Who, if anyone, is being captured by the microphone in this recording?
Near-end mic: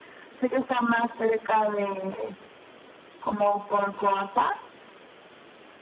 echo only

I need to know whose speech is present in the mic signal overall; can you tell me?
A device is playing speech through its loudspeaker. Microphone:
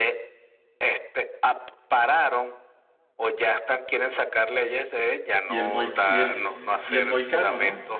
both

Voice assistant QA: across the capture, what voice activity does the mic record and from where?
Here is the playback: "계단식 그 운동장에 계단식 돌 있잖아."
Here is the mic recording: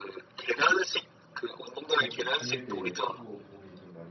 both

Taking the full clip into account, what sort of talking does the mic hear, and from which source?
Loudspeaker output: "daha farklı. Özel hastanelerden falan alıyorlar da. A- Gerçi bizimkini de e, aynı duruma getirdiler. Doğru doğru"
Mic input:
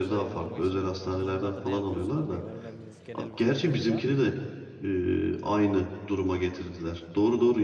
both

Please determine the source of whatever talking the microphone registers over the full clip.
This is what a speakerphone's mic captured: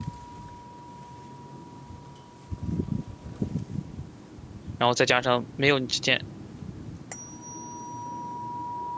user only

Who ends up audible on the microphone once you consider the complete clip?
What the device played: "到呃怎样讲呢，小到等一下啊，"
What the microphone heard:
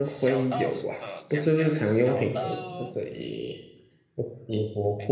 both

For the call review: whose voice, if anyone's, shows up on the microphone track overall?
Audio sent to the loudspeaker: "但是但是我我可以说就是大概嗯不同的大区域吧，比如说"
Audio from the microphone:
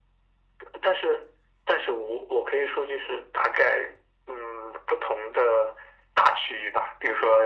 echo only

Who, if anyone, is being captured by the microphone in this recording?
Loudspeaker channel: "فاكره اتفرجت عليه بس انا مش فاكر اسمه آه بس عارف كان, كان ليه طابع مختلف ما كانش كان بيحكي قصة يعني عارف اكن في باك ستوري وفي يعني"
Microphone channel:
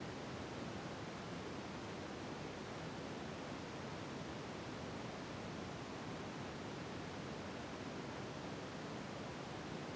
neither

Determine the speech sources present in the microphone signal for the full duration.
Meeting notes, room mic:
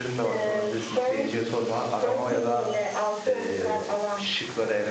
both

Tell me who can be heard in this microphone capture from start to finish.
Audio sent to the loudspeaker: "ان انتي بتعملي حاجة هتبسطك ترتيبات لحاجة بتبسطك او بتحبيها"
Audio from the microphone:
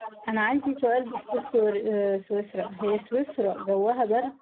both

